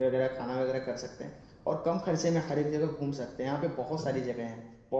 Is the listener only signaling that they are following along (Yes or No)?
Yes